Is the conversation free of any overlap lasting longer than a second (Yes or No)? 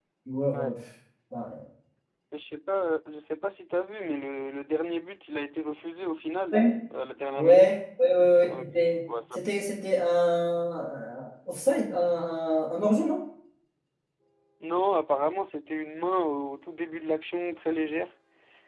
Yes